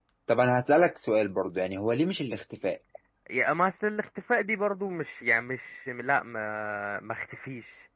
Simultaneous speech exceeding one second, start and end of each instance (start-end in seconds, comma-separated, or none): none